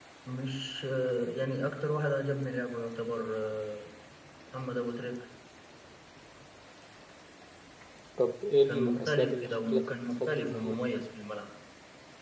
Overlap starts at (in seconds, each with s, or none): 8.7 s